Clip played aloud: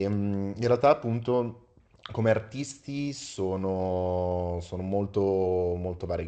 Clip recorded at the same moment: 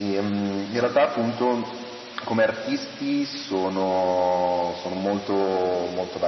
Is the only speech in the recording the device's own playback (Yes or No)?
Yes